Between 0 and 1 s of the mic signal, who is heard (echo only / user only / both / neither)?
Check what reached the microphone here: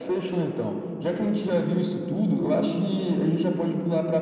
echo only